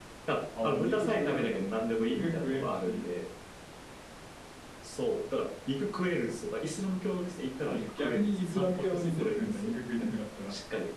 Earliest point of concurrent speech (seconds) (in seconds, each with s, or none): 0.6 s